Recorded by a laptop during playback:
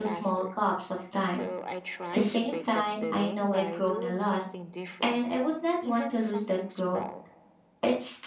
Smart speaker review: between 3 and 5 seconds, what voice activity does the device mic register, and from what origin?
both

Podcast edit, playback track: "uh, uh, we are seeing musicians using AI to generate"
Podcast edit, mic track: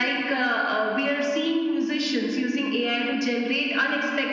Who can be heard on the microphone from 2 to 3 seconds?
echo only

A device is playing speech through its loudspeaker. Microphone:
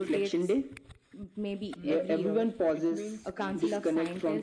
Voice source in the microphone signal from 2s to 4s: both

